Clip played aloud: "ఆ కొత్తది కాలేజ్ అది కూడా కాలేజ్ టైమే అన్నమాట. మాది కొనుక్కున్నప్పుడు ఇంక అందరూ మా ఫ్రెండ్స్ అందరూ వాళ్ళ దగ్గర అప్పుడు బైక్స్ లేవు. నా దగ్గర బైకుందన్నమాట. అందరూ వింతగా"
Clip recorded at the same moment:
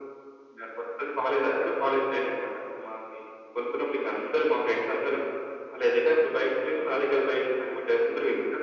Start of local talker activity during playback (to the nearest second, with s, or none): none